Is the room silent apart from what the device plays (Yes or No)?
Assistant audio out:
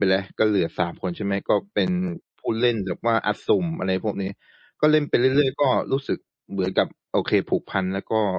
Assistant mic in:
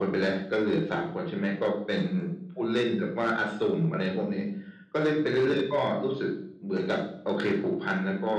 Yes